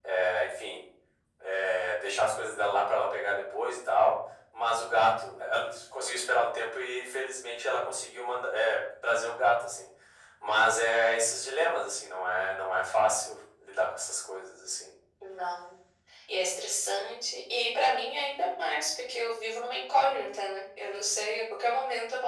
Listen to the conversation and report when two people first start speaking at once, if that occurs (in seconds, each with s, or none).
none